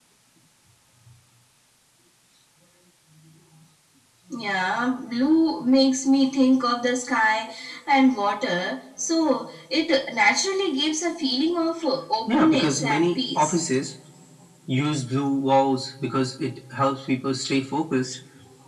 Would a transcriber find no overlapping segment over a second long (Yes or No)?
No